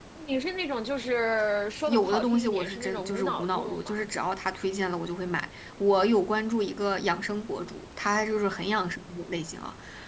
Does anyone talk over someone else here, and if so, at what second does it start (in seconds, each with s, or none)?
1.9 s